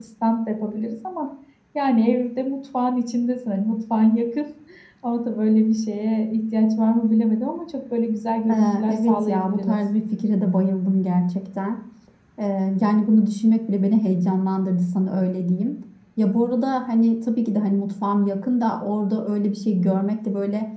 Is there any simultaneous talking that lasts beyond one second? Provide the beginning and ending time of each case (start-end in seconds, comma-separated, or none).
8.5-9.8